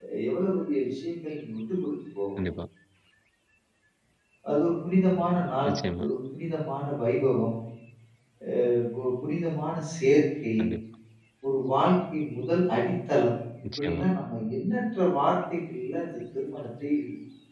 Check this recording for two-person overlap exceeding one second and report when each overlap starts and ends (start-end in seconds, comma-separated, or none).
none